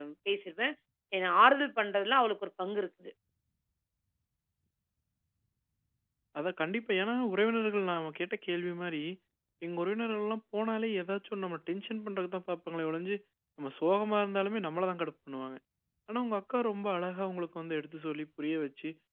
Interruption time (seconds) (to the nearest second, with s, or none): none